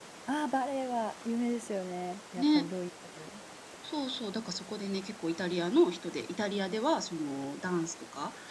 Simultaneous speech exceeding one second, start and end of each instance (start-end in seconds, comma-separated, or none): none